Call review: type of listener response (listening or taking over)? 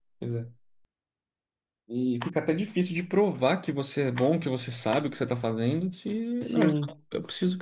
listening